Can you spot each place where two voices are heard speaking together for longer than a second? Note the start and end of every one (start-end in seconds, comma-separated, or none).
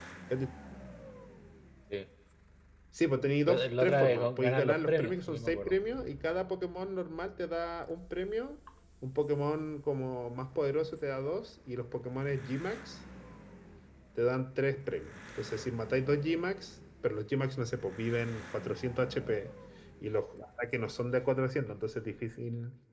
3.5-5.8